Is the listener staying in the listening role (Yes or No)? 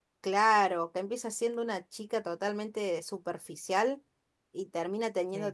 Yes